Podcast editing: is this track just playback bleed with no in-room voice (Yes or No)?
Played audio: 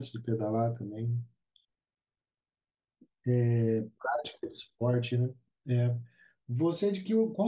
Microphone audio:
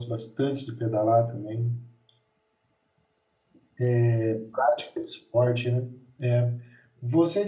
Yes